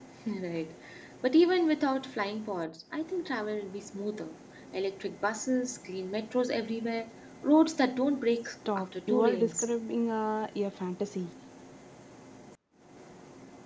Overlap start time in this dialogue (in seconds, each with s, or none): 8.4 s